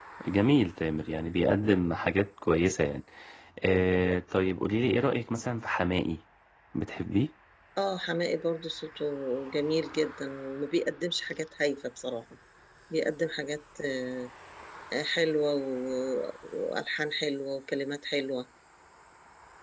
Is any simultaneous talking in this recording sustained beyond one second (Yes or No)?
No